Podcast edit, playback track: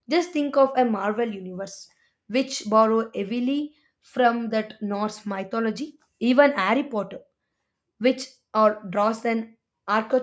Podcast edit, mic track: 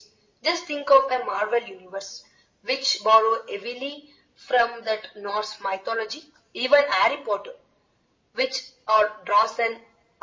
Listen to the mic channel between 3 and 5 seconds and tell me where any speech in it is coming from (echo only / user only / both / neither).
echo only